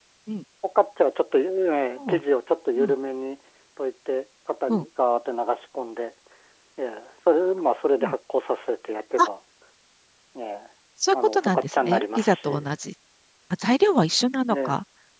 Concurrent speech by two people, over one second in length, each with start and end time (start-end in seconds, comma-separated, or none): 11.1-12.7